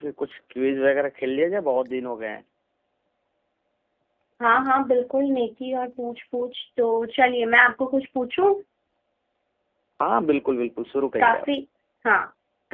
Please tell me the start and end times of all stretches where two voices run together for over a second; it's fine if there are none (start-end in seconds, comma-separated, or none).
none